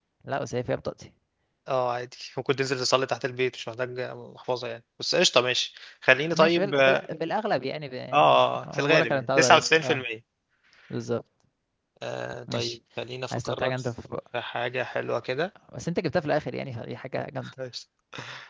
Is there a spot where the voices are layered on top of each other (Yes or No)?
Yes